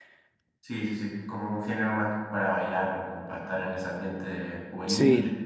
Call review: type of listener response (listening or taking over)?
listening